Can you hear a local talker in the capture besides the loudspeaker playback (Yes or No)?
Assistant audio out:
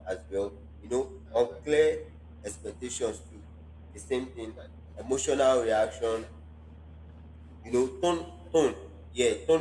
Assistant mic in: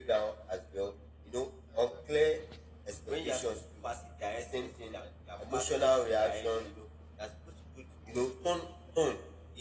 Yes